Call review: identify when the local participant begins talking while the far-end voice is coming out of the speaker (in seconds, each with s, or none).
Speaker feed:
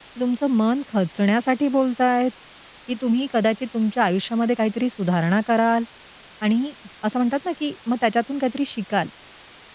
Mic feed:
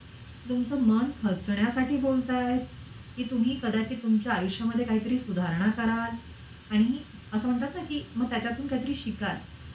none